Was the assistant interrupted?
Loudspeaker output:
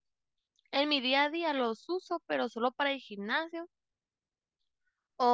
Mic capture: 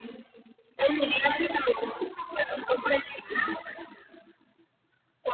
No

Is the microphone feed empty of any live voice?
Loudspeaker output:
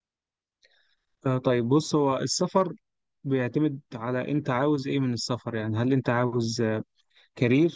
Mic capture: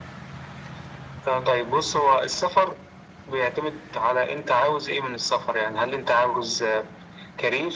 Yes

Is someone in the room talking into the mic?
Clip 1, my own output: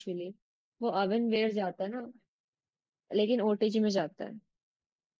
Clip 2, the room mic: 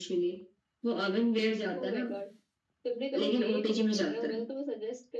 Yes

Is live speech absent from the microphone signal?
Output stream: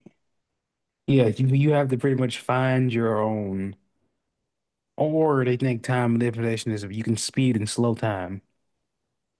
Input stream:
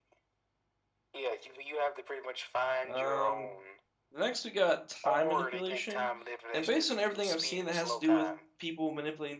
No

